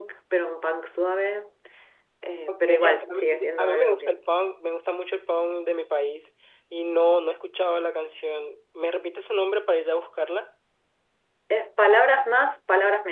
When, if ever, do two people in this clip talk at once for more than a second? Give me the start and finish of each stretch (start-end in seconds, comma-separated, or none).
2.5-4.2